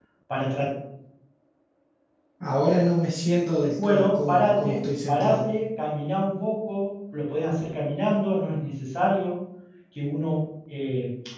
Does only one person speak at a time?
No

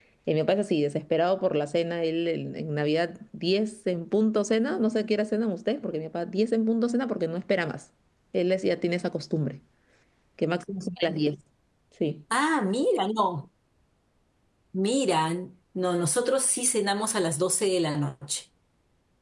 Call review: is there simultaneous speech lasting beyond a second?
No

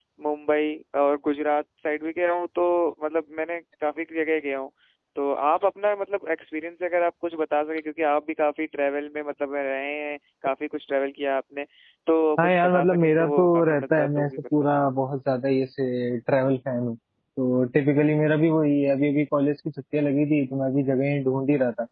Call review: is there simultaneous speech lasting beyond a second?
Yes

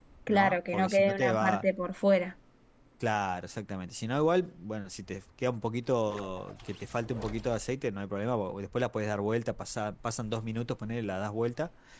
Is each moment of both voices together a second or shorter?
No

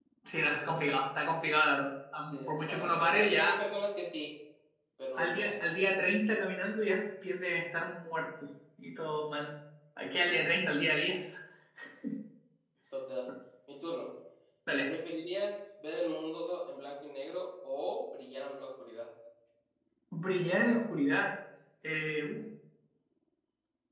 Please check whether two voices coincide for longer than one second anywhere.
Yes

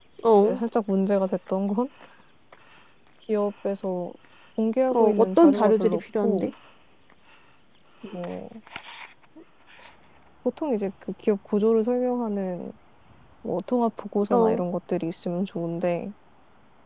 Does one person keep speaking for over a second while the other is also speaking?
Yes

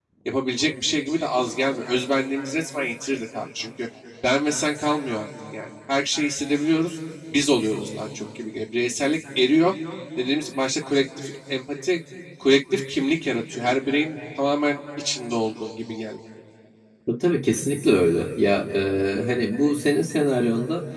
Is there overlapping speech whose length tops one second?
No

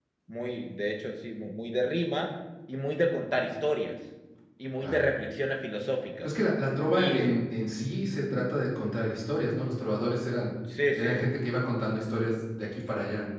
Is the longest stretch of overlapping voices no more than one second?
Yes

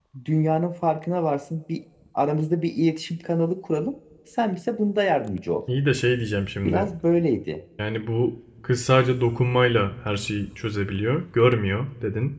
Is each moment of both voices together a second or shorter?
Yes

